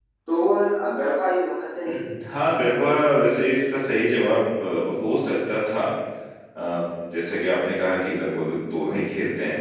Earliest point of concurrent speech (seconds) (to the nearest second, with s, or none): none